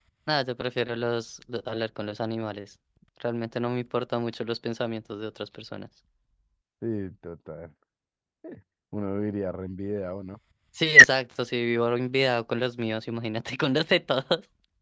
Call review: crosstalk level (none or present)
none